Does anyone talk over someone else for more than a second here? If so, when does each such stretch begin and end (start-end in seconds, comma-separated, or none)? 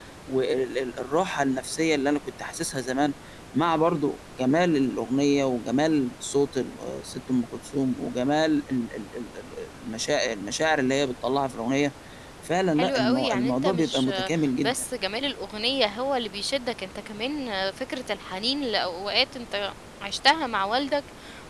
12.8-14.1